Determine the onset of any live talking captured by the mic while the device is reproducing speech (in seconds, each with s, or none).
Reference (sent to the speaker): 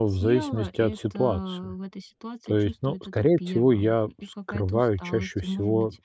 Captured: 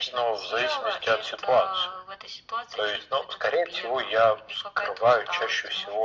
none